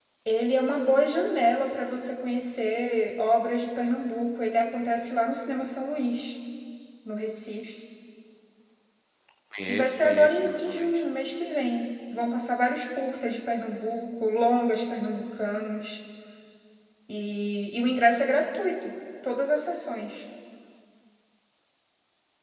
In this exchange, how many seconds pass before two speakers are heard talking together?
10 s

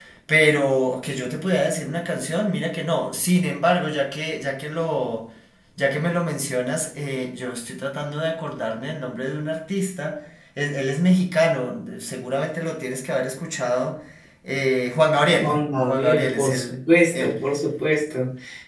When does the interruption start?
15 s

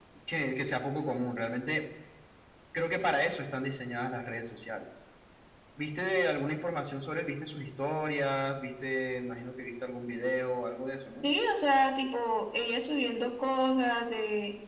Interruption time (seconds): none

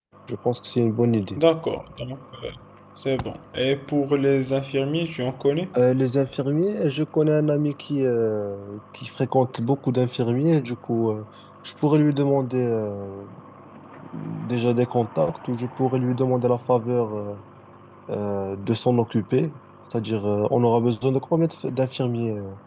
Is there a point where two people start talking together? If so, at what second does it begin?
none

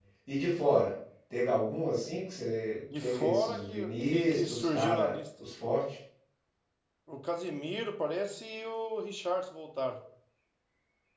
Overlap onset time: 3 s

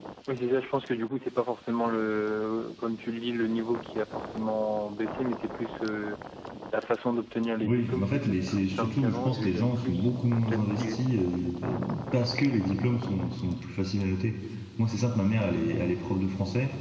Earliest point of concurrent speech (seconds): 8 s

